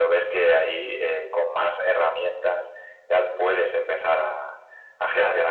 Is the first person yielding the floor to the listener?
No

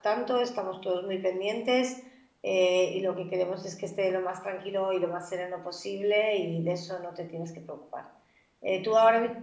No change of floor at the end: Yes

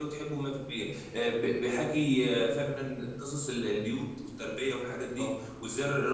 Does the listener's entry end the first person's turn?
No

